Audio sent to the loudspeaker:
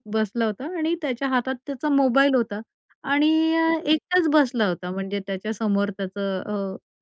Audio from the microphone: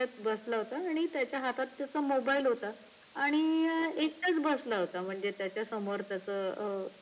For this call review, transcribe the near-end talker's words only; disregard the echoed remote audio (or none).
none